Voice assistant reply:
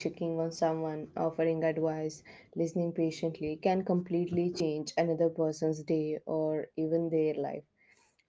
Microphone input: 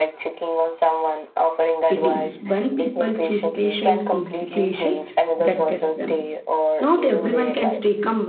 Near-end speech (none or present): present